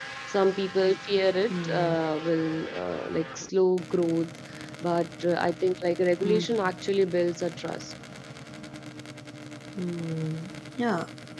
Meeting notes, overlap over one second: none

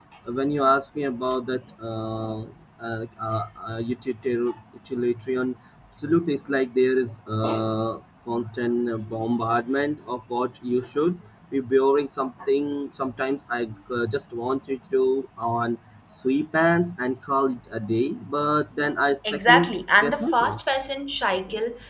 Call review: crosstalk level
present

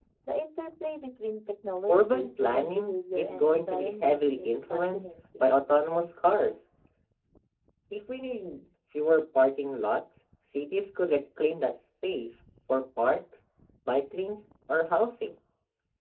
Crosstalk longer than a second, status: present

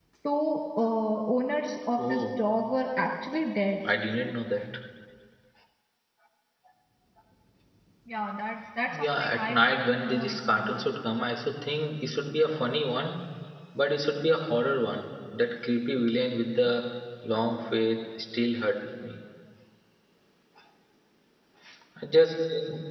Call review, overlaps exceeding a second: present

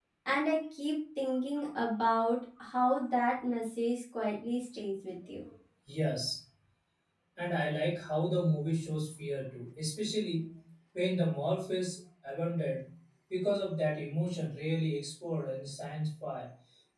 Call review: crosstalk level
none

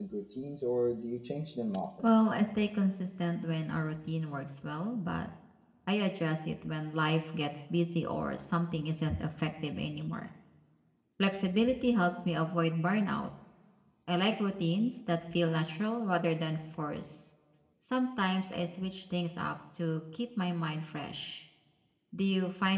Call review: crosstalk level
none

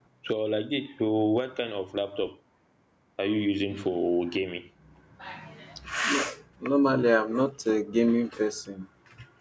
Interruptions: none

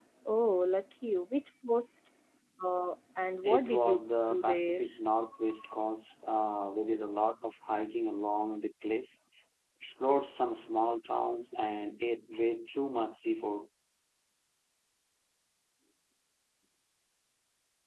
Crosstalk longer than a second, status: present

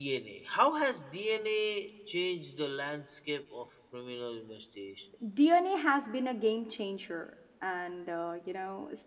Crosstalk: none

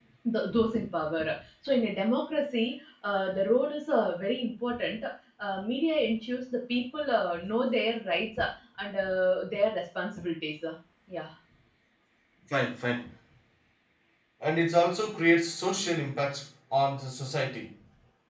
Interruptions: none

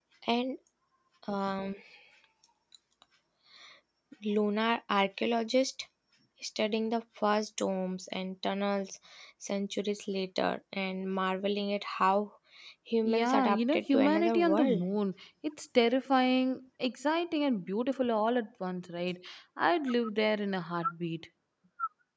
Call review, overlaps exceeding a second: present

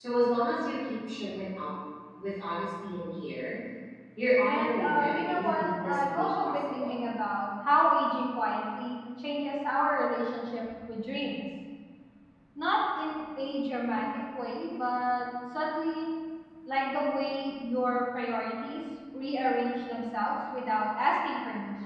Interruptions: present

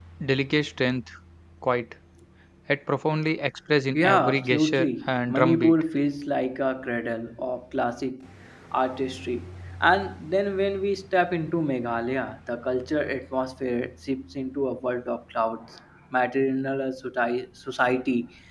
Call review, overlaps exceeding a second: present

